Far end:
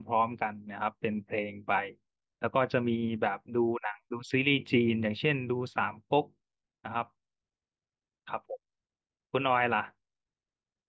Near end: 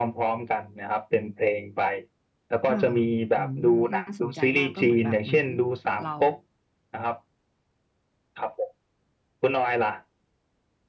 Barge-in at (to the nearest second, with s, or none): 3 s